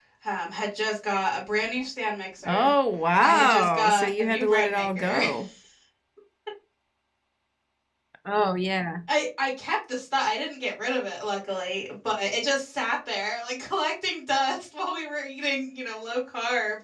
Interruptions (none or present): present